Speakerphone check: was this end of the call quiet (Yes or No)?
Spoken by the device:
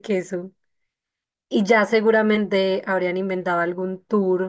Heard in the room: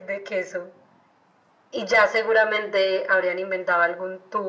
Yes